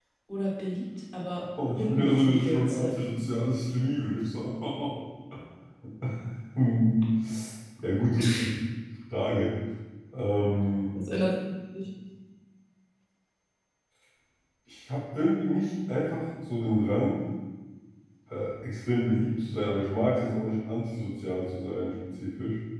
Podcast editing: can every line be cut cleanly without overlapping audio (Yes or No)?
No